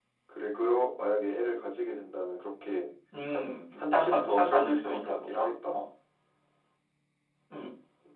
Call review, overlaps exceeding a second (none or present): present